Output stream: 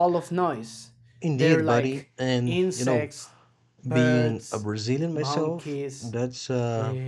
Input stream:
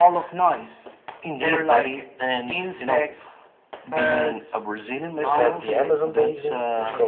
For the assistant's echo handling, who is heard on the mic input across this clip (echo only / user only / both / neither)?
both